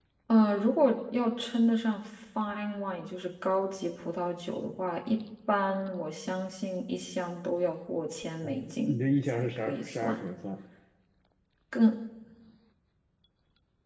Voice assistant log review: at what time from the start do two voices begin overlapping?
8.4 s

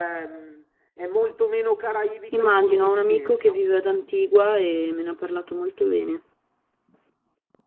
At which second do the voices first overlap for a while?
2.3 s

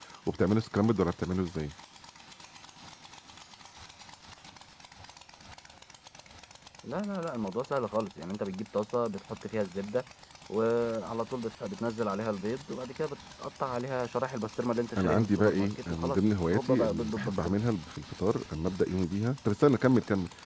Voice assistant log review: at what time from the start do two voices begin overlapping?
15.0 s

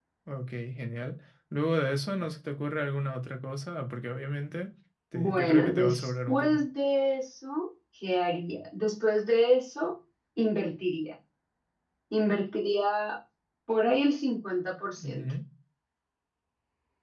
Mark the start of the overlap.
5.1 s

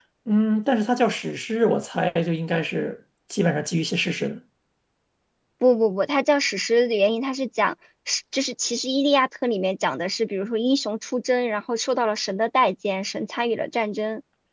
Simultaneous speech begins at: none

